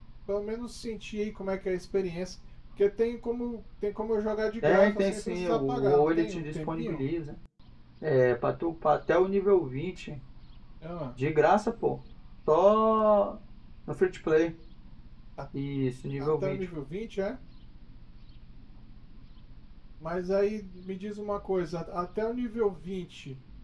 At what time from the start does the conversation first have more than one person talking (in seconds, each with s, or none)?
4.6 s